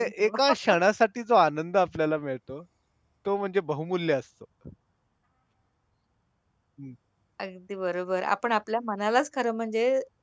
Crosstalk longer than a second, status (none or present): none